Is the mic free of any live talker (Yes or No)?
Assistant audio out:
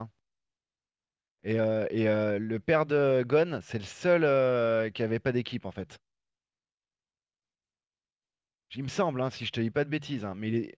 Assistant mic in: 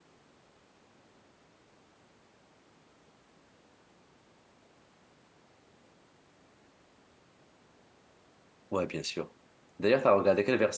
No